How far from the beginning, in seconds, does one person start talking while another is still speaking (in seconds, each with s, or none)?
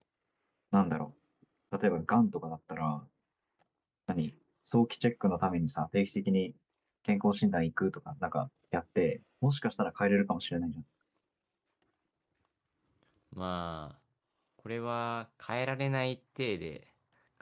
none